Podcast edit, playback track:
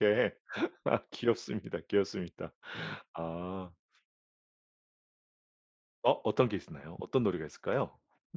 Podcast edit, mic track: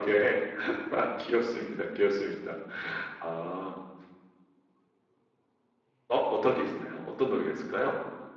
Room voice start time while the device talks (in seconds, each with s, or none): none